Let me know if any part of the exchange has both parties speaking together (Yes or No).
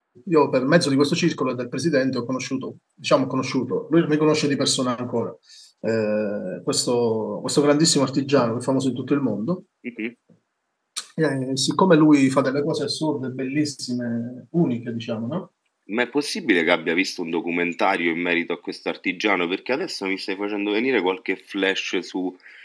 No